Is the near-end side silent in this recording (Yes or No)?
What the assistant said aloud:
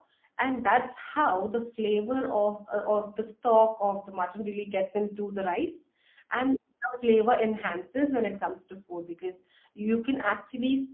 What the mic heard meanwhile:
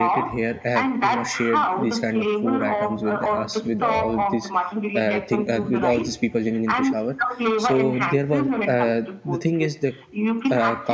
No